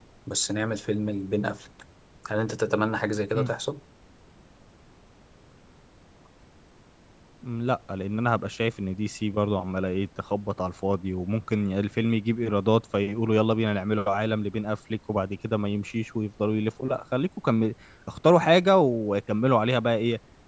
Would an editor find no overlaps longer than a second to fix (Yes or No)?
Yes